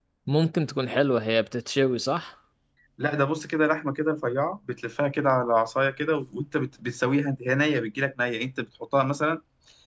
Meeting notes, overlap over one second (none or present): none